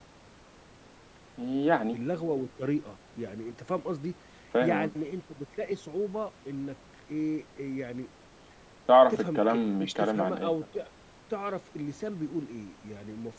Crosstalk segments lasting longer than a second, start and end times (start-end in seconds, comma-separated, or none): 9.1-10.5